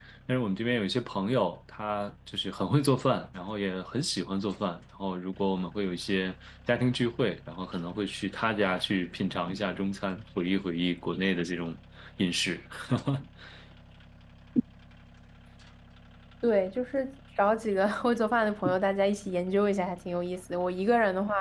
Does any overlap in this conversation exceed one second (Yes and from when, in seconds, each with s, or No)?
No